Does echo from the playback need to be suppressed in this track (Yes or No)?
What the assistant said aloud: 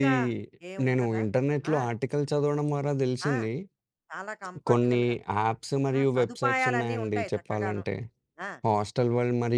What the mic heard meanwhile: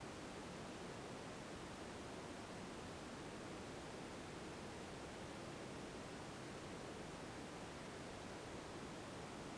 No